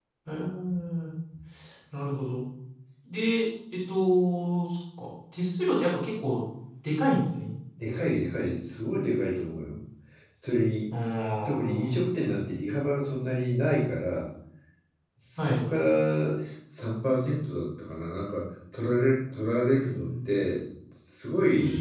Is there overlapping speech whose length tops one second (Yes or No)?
No